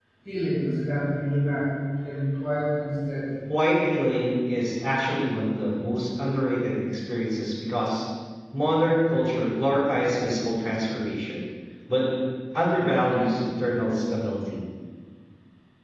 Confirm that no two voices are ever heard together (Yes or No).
Yes